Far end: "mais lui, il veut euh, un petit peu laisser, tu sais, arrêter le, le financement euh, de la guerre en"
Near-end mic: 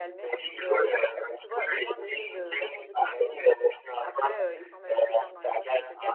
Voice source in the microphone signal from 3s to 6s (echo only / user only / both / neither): both